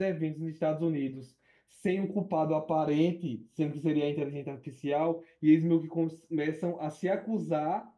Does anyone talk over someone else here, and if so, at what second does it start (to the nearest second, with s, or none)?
none